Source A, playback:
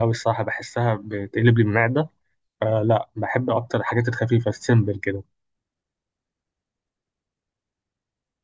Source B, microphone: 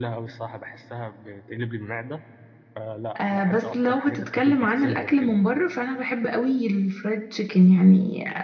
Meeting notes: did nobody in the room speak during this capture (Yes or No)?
No